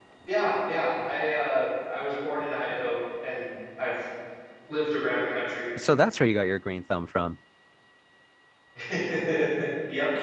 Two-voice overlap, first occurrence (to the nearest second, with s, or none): none